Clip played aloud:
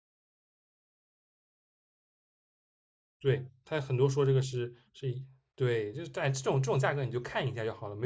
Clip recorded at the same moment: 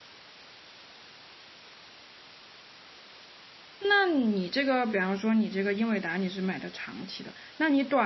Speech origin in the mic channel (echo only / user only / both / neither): user only